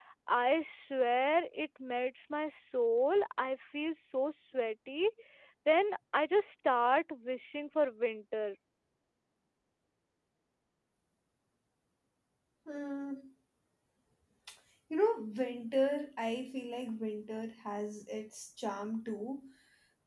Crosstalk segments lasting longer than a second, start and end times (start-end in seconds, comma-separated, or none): none